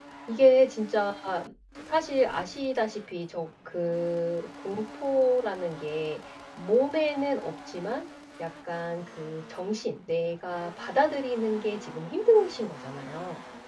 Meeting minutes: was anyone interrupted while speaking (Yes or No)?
No